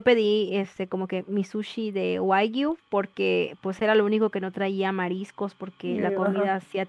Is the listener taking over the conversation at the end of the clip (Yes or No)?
No